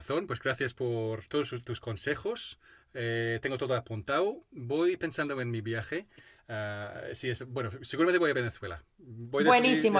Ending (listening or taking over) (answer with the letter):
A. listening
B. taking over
B